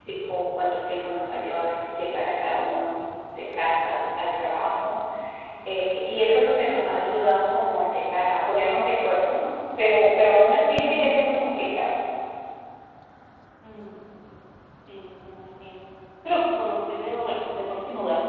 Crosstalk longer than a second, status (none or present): none